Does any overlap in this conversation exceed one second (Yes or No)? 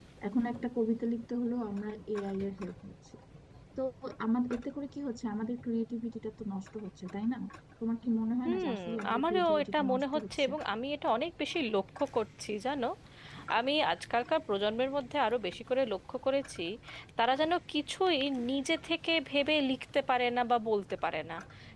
Yes